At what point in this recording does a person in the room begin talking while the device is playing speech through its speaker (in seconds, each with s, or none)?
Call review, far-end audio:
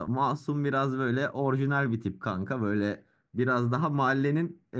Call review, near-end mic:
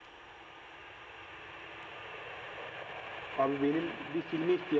3.4 s